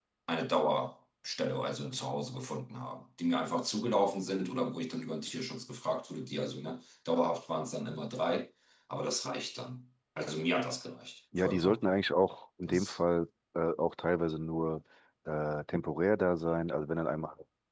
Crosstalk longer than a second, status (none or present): none